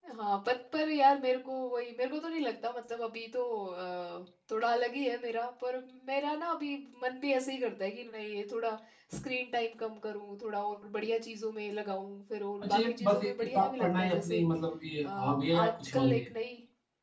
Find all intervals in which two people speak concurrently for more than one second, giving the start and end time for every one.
12.6-14.4, 15.0-16.3

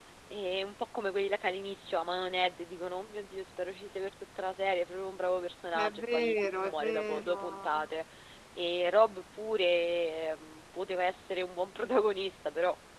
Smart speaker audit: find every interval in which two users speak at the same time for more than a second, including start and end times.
5.7-7.8

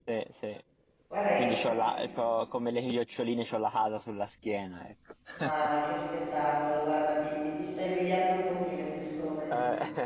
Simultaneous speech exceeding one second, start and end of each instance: none

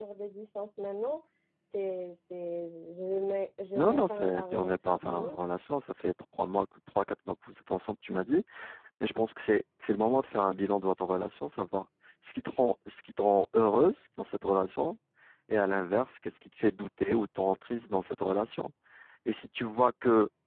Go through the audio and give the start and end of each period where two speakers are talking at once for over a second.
3.8-5.4

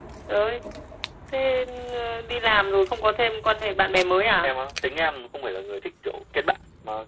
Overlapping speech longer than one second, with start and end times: none

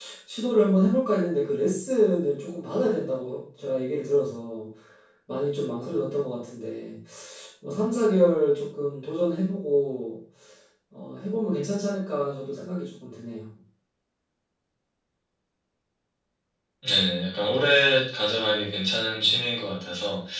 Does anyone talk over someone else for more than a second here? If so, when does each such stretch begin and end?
none

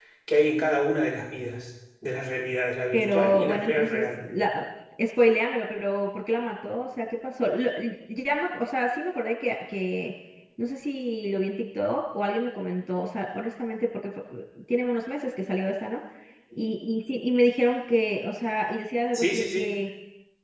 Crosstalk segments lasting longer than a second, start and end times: 2.9-4.2

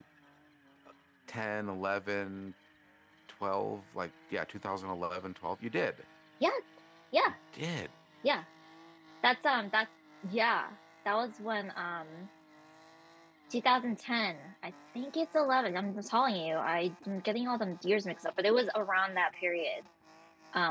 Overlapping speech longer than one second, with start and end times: none

